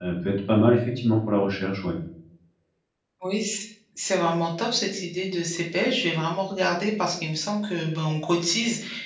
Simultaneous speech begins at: none

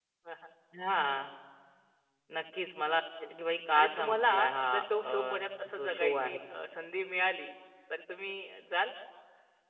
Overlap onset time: 3.7 s

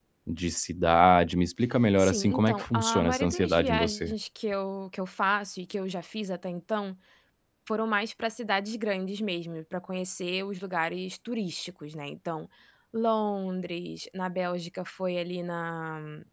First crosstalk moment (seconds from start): 2.0 s

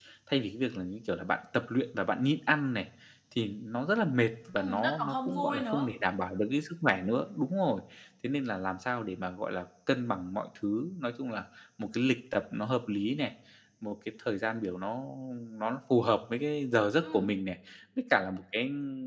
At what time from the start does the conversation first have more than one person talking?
4.6 s

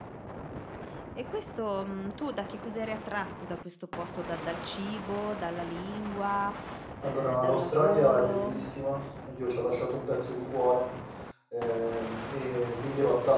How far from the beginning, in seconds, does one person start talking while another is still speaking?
7.0 s

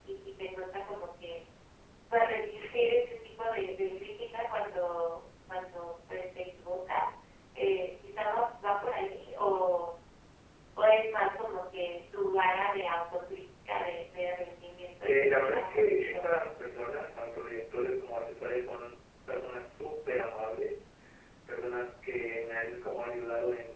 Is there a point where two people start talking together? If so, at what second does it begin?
15.0 s

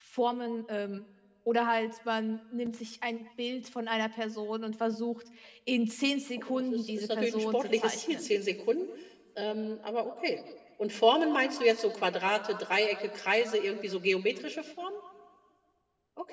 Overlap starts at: 6.4 s

